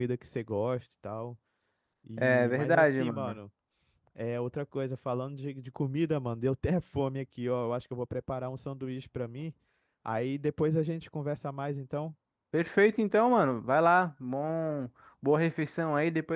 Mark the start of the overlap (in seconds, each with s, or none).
2.2 s